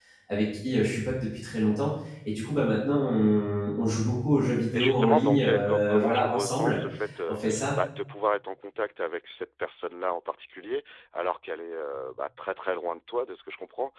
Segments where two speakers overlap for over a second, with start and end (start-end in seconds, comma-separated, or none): 4.7-6.8